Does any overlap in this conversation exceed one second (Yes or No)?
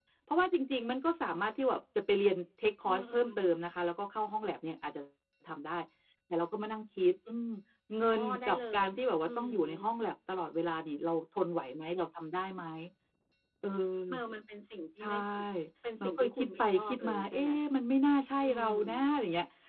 Yes